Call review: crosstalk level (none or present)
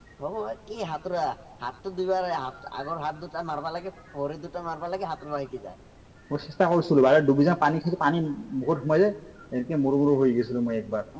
none